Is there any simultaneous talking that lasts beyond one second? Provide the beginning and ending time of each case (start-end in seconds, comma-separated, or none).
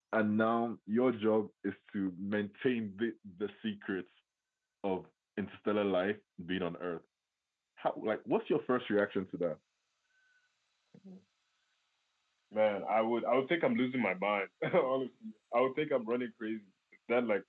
none